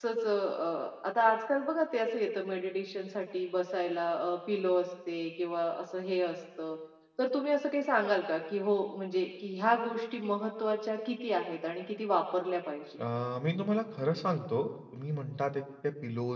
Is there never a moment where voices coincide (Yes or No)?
Yes